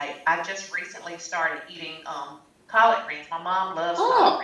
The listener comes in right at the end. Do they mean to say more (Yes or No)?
No